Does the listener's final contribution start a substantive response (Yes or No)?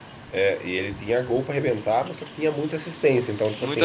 No